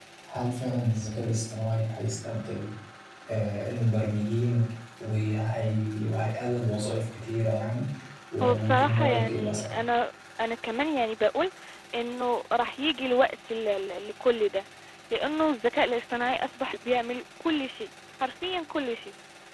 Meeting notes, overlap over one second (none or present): present